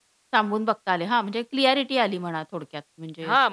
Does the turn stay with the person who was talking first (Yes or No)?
No